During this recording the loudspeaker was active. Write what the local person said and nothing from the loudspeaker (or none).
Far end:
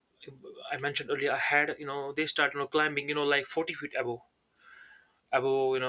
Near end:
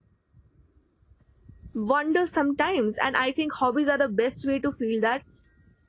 wonder sometimes. And I think hobbies are the best way to feel that.